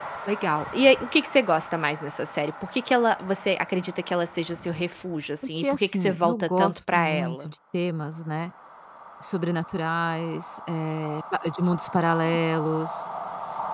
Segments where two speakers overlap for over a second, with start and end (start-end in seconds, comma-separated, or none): 5.6-7.5